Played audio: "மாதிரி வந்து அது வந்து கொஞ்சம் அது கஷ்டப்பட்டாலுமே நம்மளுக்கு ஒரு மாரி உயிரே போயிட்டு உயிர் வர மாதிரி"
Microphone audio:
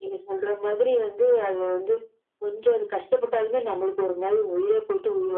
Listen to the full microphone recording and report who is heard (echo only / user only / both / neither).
echo only